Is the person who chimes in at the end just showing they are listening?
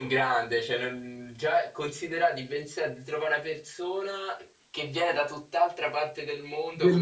No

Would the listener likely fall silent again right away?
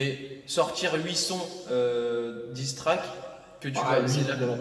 No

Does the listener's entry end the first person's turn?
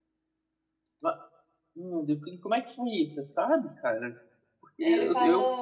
No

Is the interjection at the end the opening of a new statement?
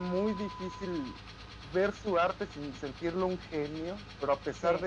No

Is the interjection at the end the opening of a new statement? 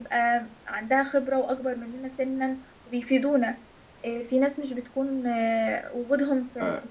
Yes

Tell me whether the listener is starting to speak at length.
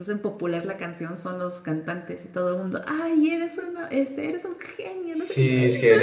Yes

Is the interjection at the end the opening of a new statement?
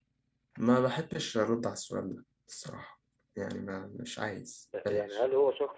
Yes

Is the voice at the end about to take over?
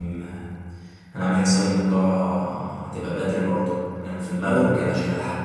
No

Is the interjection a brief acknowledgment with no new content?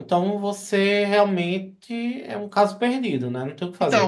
No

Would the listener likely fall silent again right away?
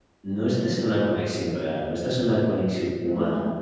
Yes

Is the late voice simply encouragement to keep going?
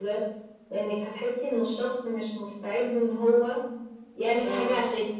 Yes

